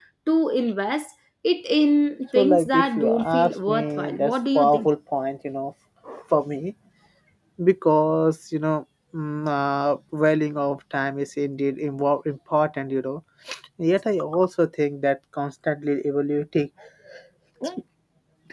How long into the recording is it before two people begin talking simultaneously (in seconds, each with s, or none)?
2.4 s